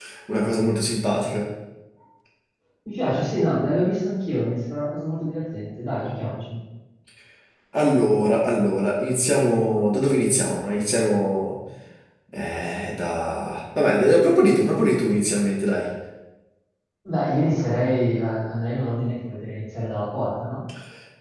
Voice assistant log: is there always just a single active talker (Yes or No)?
Yes